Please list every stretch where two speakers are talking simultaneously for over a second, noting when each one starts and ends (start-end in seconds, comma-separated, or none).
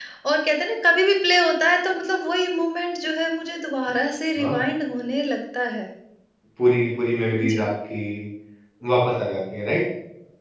none